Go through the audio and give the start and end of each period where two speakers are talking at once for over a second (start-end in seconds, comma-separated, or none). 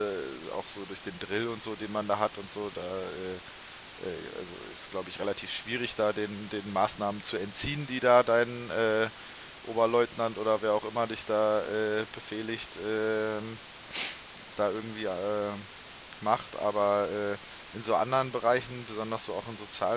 none